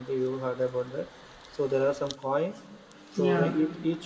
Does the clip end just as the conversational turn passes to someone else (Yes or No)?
No